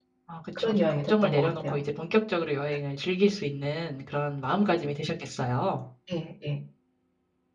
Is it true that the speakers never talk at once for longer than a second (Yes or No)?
No